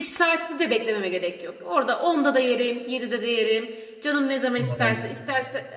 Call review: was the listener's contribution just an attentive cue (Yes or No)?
Yes